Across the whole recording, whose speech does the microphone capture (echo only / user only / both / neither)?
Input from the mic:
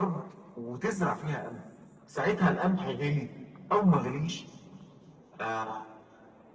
echo only